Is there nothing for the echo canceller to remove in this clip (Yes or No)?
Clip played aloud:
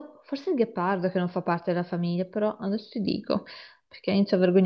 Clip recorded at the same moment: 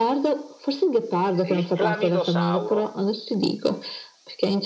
No